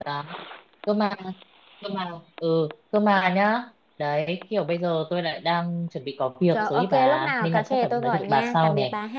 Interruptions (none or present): present